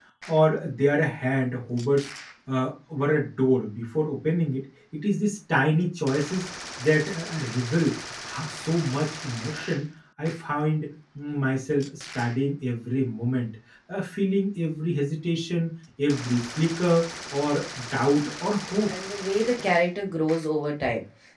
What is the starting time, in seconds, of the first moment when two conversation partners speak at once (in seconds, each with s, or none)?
none